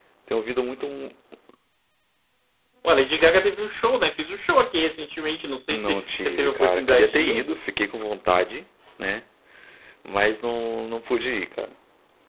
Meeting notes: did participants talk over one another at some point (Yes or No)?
Yes